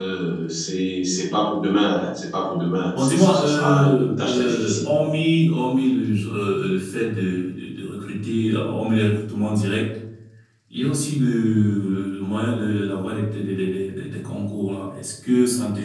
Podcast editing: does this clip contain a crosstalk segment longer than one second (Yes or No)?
Yes